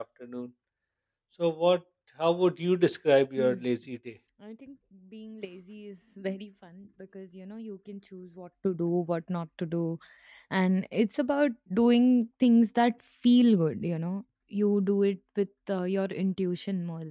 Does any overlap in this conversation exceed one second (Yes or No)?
No